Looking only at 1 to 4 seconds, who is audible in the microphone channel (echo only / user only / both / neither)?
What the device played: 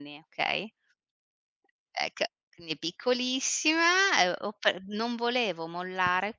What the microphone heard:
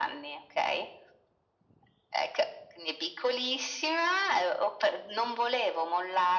echo only